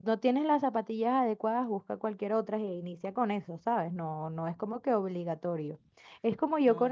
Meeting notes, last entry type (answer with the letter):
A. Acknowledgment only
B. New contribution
A